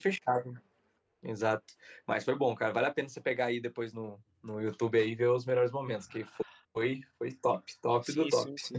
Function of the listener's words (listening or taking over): taking over